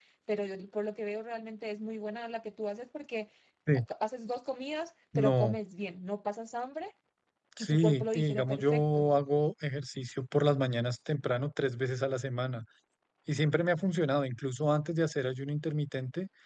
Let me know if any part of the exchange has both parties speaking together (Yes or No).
Yes